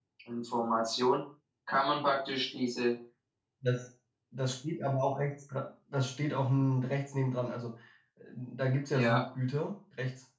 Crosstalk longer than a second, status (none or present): none